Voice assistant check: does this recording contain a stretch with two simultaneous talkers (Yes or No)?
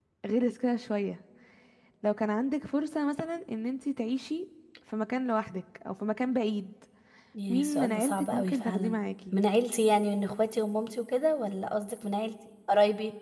Yes